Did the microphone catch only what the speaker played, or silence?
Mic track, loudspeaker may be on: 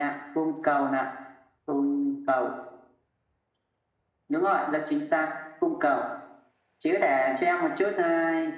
Yes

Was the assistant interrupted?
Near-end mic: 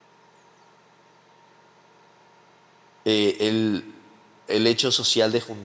Yes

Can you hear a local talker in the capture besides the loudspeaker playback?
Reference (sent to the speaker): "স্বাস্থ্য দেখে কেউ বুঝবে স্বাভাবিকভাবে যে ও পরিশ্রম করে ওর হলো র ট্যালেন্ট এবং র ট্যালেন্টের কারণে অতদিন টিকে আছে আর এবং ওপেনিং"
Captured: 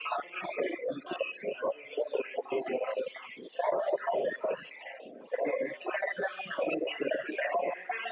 No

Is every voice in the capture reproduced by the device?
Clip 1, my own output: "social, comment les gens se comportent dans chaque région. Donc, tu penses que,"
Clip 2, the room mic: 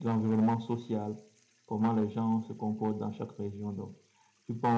Yes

